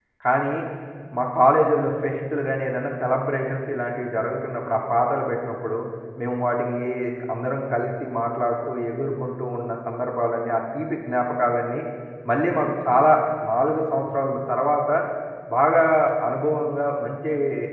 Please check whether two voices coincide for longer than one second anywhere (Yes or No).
No